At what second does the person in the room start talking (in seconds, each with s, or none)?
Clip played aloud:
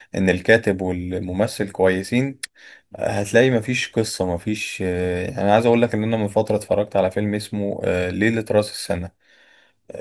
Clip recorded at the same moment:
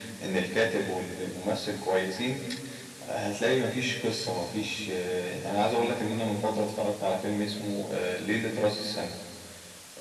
none